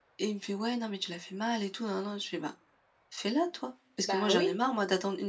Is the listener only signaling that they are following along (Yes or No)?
Yes